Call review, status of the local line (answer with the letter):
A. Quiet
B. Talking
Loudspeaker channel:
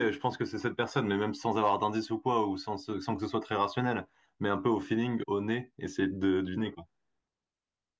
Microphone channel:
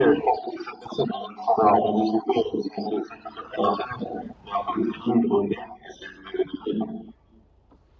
A